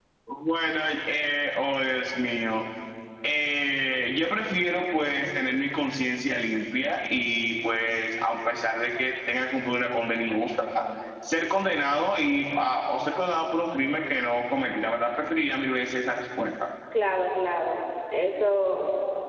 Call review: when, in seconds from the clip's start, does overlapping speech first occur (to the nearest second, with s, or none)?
none